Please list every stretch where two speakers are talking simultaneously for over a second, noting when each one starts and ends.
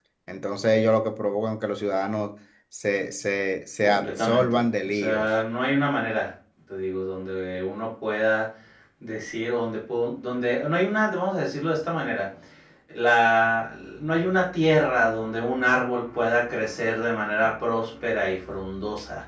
3.8-5.4

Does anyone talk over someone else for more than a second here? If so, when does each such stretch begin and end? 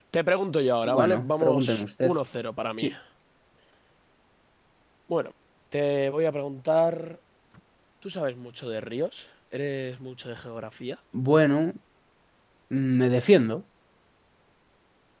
0.8-2.1

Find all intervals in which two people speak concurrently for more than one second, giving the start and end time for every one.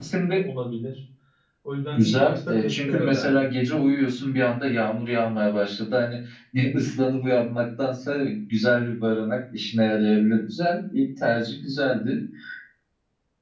1.9-3.5

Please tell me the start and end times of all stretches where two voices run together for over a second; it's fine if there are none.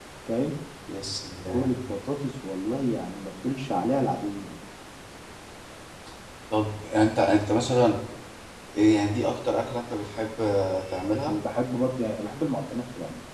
none

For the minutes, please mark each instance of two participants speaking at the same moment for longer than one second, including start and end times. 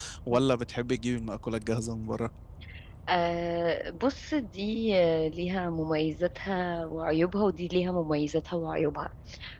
none

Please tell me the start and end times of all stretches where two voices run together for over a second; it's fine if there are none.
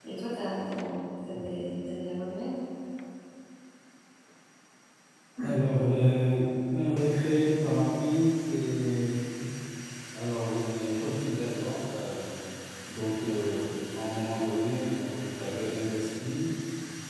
none

